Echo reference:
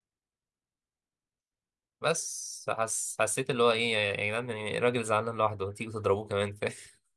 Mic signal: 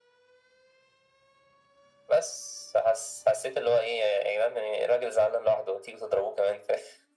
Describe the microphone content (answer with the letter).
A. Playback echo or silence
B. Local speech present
A